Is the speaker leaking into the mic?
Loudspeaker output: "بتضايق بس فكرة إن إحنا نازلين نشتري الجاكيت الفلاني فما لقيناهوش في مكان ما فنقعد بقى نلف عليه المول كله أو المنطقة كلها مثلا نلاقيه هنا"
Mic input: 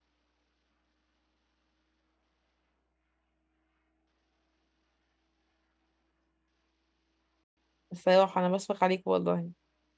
No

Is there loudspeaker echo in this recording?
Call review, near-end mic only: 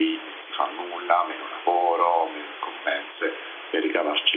Yes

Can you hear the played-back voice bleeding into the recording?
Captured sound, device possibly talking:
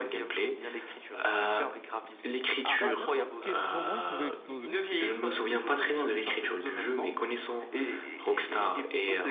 Yes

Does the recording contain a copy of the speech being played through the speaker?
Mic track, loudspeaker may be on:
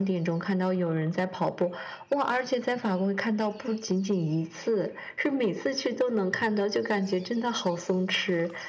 Yes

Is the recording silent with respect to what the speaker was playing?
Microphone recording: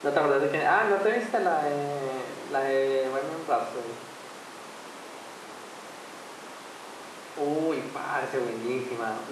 Yes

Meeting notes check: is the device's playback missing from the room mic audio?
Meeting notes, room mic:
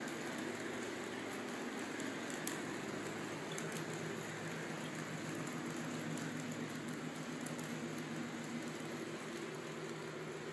Yes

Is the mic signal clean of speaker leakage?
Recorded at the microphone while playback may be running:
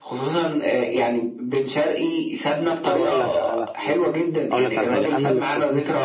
No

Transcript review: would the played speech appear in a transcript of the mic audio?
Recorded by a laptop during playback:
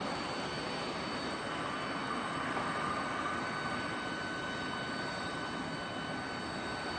No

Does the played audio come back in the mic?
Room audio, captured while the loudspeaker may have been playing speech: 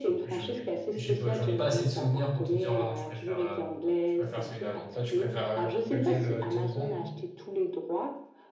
Yes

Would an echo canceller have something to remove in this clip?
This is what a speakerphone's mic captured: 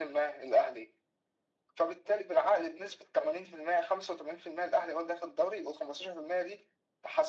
Yes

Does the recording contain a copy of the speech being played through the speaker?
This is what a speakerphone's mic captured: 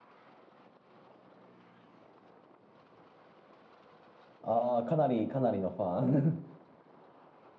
No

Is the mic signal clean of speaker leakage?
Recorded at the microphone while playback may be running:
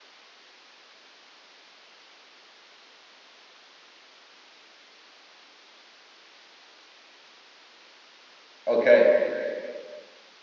Yes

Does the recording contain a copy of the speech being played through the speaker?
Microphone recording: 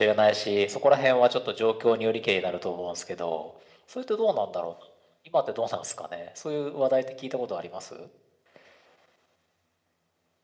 Yes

